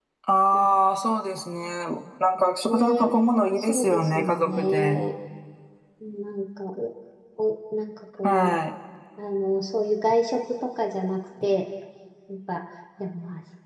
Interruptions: present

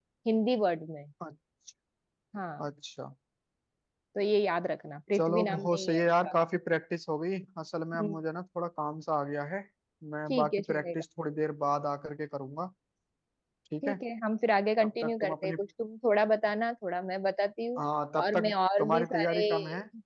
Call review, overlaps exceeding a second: present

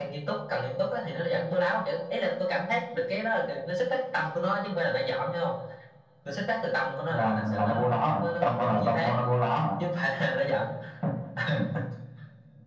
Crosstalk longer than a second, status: present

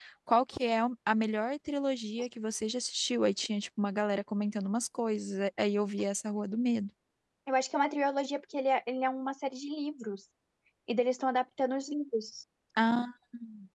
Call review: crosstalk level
none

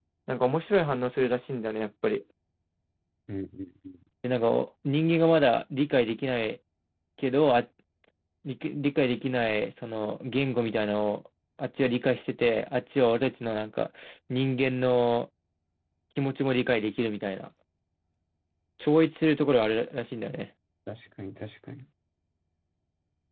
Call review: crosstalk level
none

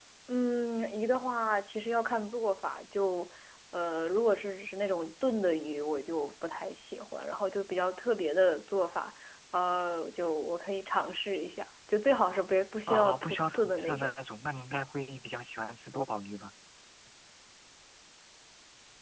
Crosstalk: present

